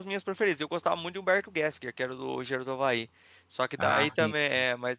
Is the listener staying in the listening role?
Yes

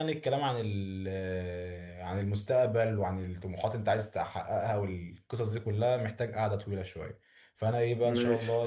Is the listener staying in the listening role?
Yes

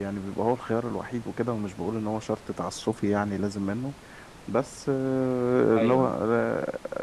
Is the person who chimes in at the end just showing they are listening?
Yes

